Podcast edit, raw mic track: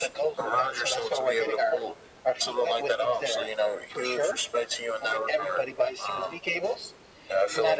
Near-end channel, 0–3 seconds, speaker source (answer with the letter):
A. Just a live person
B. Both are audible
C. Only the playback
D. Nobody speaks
C